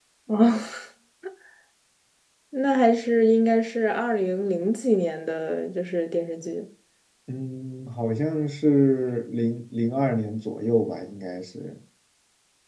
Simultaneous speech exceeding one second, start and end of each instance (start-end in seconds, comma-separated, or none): none